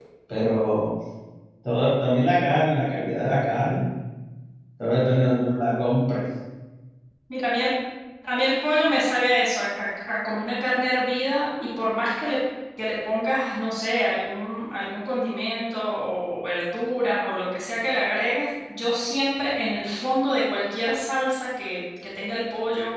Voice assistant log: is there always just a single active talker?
Yes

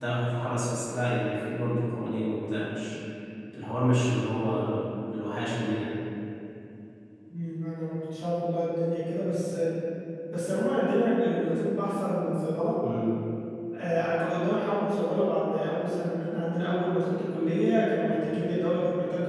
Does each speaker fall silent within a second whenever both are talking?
Yes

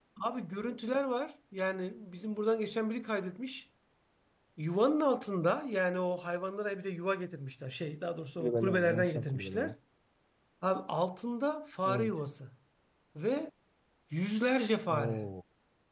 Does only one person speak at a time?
No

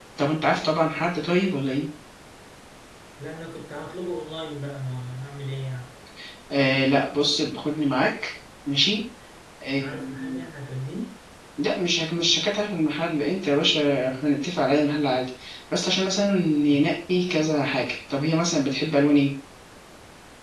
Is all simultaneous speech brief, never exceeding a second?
Yes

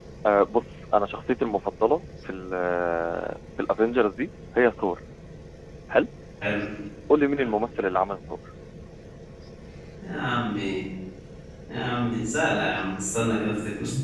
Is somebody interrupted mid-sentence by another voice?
No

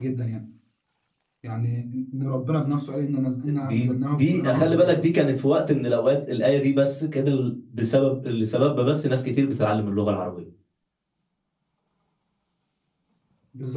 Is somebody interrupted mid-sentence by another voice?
Yes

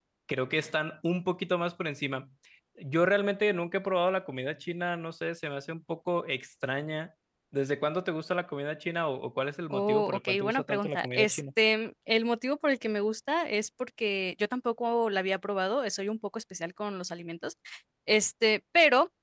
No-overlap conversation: No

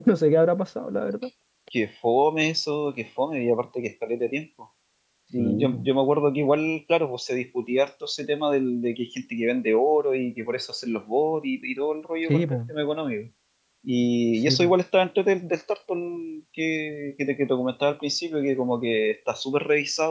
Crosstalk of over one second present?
No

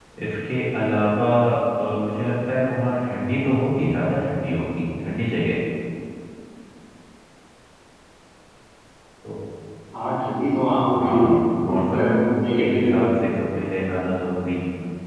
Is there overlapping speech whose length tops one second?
Yes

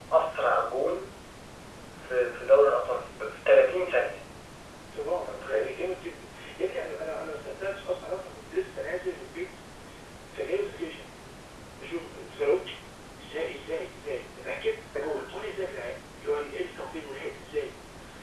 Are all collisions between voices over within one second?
Yes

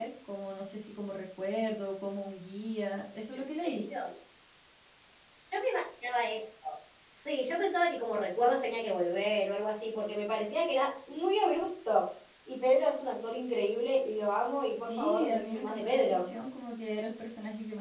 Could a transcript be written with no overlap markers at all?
No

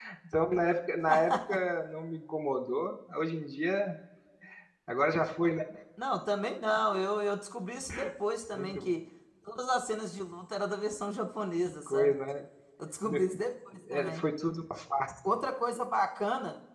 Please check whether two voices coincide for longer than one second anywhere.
No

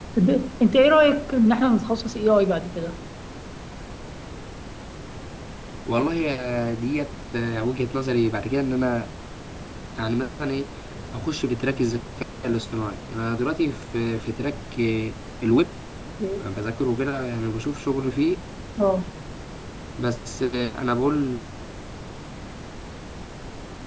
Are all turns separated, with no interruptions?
Yes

